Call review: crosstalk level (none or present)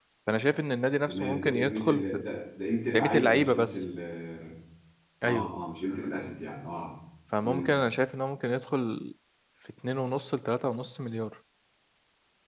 present